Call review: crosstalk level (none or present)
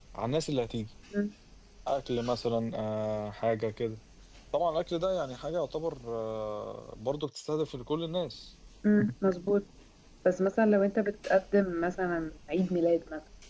none